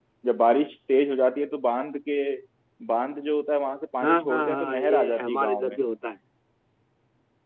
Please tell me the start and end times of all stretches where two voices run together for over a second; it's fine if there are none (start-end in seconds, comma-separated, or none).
4.0-5.8